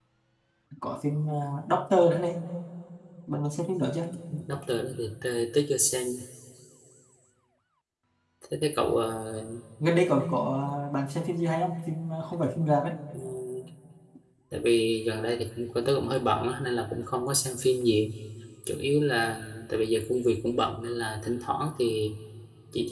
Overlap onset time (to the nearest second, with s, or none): none